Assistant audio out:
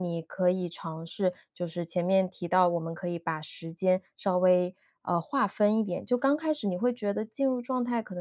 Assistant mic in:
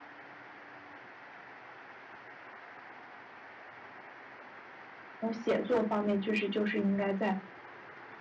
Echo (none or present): none